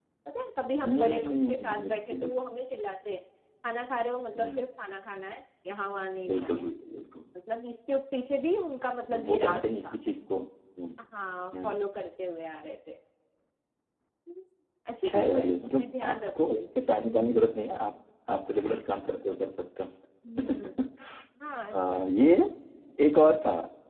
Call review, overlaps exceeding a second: present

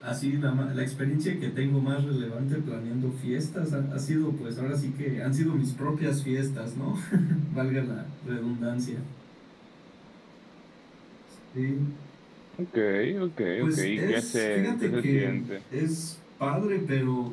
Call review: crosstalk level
present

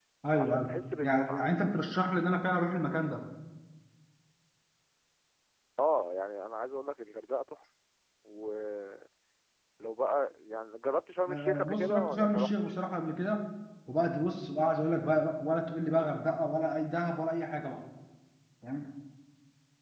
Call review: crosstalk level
present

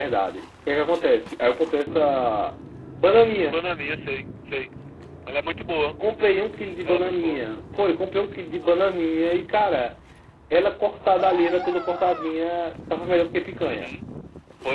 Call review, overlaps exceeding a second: none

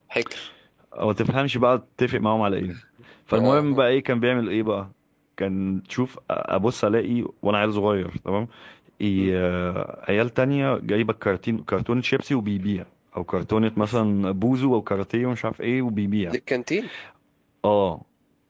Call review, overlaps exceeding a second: none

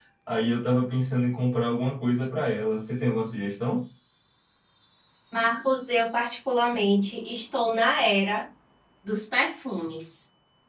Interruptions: none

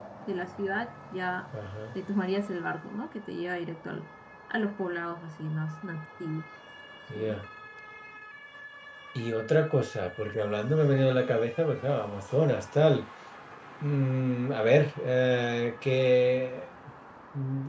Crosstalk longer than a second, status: none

